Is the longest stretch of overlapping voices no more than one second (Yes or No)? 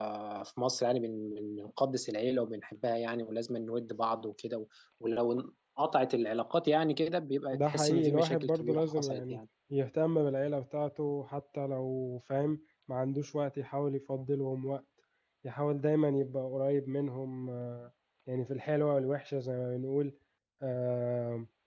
No